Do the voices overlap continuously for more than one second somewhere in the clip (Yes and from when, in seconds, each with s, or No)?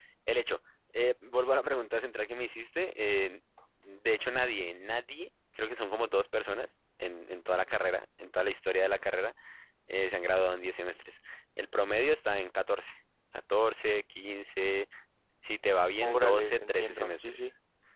Yes, from 16.0 s